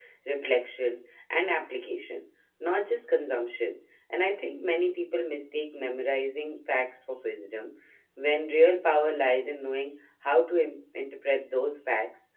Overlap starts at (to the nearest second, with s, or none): none